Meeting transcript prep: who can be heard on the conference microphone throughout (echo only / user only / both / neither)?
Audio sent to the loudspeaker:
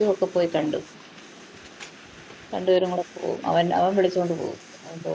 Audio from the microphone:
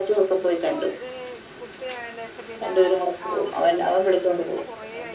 both